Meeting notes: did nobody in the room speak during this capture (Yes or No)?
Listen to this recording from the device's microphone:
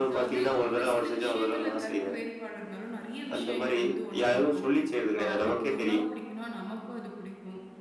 No